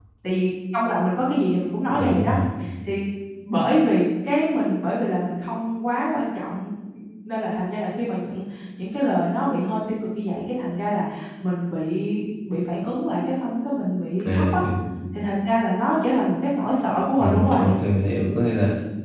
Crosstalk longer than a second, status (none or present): none